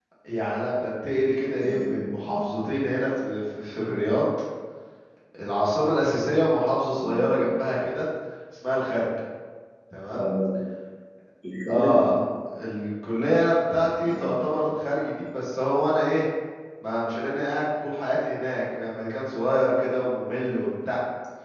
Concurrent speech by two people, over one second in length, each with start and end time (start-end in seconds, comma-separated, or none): none